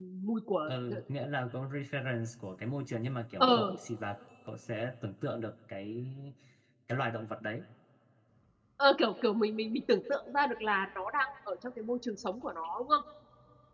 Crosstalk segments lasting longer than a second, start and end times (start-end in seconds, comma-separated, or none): none